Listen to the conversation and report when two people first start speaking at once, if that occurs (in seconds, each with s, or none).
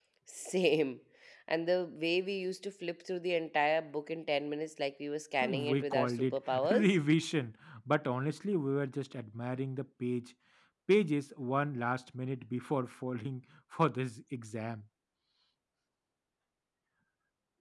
5.4 s